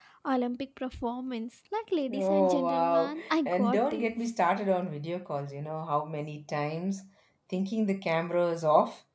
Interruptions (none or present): present